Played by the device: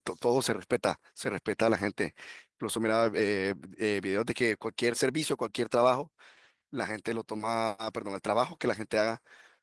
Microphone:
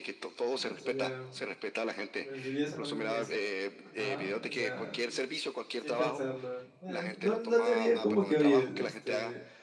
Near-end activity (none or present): present